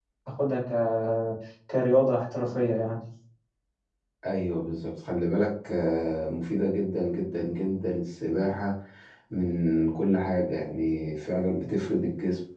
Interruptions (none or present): none